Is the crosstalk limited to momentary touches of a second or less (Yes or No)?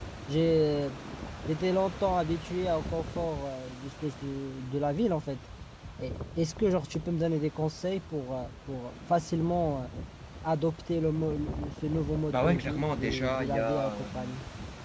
No